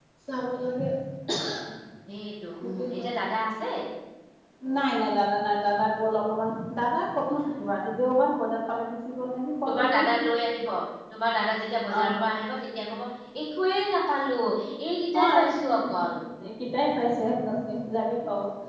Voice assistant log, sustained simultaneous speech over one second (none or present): none